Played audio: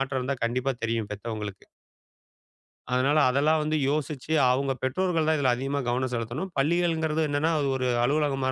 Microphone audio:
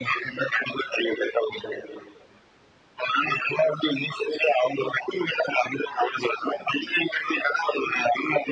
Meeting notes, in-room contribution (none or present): none